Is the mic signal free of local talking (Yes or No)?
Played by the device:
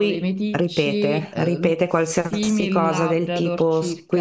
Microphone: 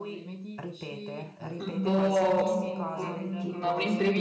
No